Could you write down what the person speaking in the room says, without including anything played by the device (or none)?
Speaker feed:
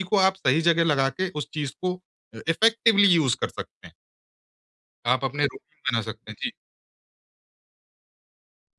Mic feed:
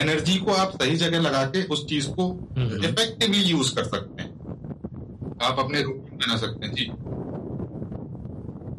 हुँ, हुँ।